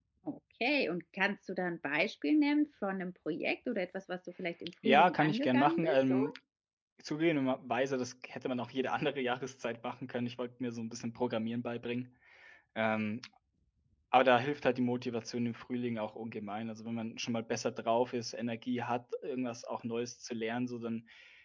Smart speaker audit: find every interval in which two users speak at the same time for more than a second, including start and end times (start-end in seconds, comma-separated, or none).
4.8-6.2